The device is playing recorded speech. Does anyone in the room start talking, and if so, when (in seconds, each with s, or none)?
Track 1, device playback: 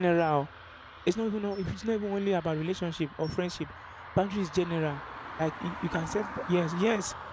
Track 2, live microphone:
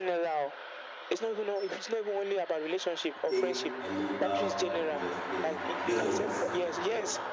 3.1 s